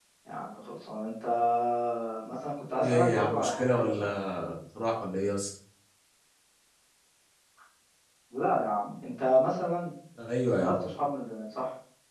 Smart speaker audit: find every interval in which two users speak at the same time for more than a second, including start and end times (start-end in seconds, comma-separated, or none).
2.8-4.0